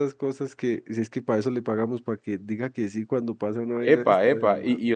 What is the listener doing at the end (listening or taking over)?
taking over